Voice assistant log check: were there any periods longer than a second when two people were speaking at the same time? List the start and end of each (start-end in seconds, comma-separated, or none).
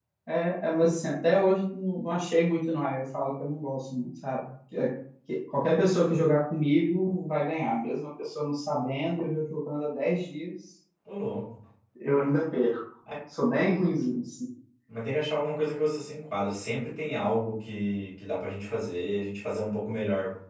none